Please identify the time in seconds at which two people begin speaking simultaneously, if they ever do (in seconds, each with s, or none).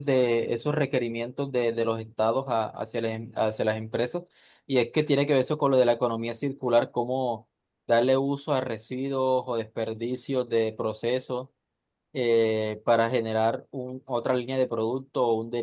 none